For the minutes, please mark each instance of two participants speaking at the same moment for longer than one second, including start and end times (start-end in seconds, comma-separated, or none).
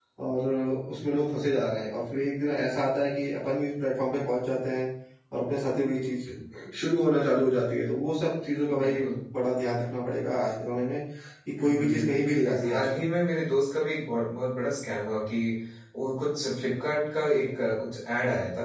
11.6-13.0